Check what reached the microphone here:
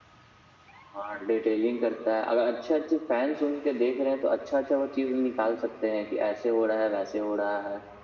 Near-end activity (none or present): none